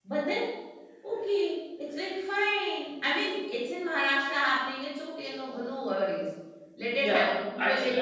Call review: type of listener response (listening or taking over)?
taking over